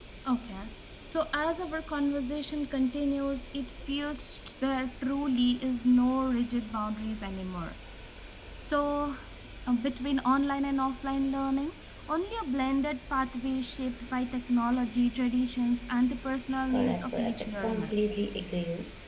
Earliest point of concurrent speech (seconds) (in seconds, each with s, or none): 16.7 s